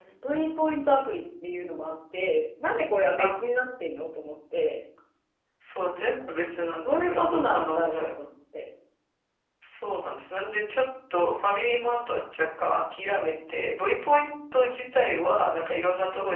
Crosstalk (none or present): present